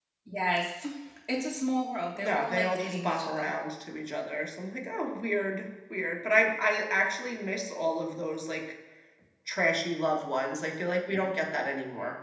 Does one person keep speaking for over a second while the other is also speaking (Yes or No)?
Yes